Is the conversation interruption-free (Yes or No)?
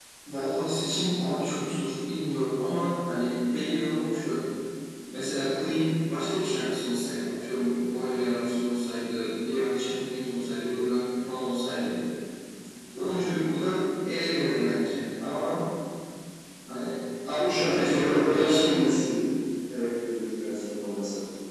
No